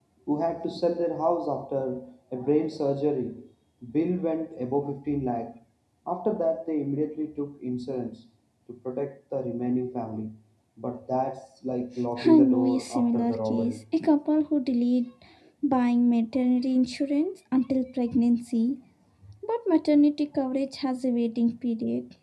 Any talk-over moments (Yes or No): Yes